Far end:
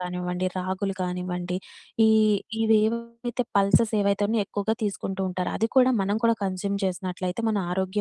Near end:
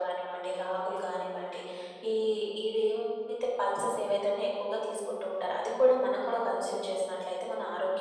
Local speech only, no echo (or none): none